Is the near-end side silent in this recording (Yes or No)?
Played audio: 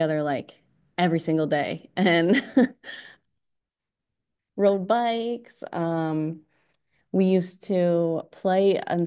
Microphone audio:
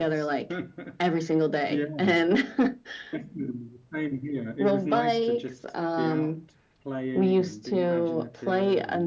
No